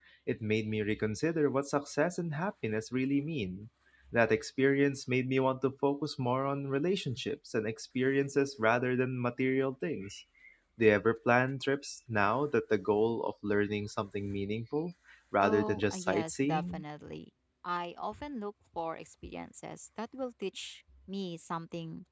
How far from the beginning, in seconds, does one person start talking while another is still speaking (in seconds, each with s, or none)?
15.4 s